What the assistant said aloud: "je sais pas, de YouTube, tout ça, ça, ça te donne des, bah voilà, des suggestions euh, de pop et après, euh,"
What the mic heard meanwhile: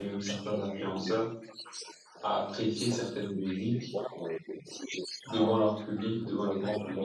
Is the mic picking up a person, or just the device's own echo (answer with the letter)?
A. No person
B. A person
B